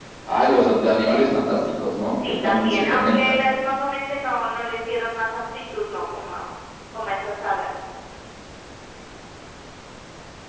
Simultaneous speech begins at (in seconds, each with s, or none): 2.1 s